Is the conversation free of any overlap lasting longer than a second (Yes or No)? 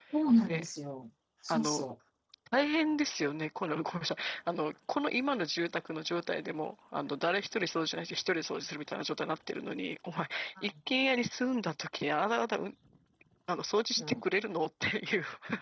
Yes